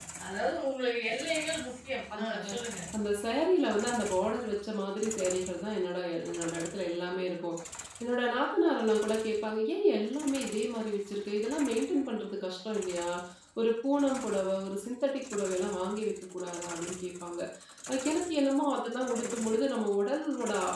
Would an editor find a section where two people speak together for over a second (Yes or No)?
No